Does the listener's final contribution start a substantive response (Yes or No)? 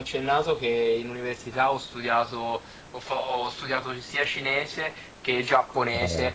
No